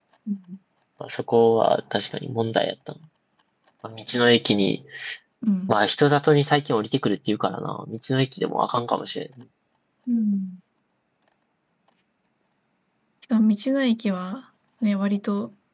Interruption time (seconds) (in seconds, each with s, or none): none